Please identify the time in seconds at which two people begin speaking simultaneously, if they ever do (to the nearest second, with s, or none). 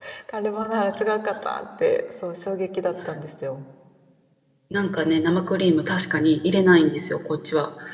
none